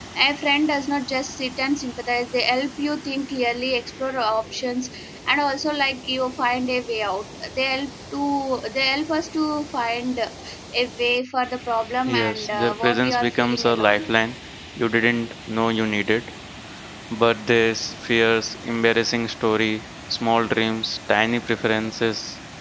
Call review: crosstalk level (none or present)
present